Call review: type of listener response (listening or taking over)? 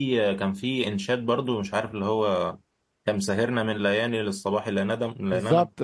taking over